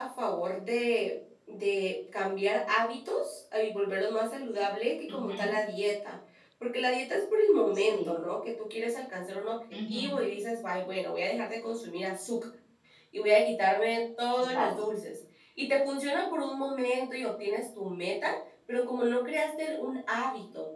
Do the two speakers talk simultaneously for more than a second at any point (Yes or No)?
No